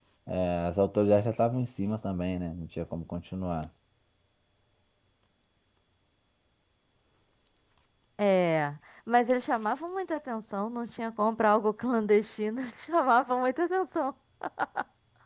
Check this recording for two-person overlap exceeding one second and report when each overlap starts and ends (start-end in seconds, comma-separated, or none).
none